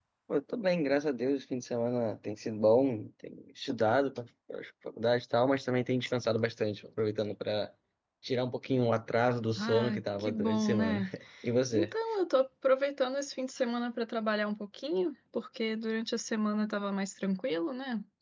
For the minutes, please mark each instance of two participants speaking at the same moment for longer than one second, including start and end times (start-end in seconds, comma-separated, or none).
9.6-11.0